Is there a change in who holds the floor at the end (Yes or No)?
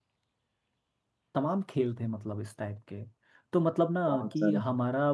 No